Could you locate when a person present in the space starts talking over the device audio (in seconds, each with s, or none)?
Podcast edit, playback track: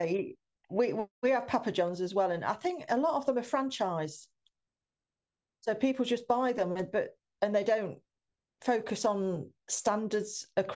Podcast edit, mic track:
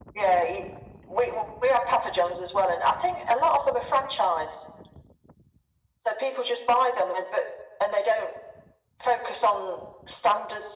none